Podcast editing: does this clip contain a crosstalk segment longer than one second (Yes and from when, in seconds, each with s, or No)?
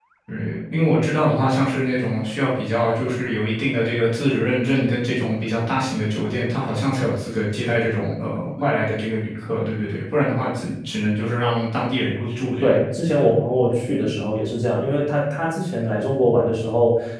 No